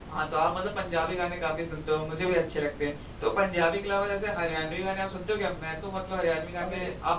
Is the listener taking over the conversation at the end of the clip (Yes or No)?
No